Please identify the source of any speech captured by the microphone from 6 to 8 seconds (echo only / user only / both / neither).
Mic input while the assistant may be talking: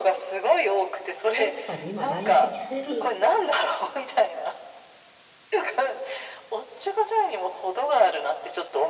echo only